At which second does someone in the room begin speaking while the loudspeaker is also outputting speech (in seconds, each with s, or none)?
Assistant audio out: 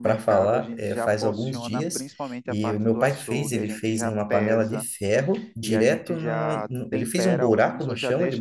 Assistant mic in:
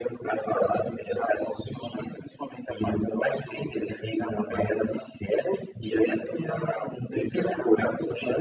none